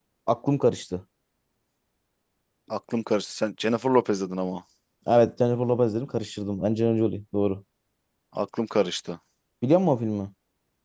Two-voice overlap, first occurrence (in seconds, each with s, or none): none